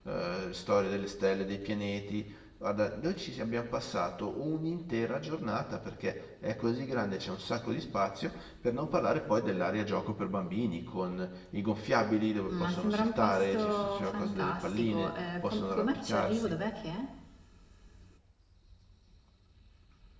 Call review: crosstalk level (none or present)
present